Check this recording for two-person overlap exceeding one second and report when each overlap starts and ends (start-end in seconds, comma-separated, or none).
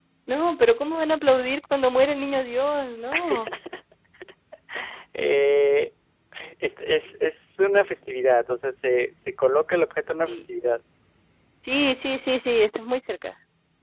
none